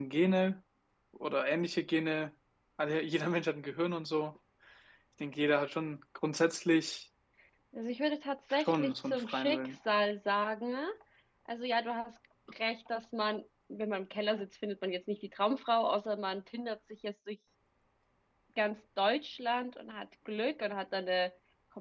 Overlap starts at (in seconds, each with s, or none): 8.5 s